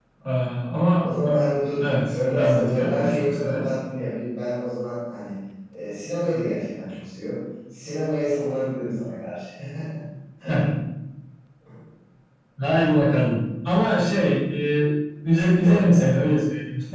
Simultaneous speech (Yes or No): Yes